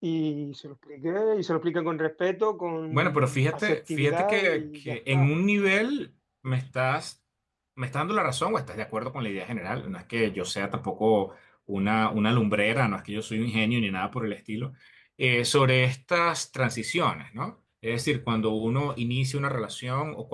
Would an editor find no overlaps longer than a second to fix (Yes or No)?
No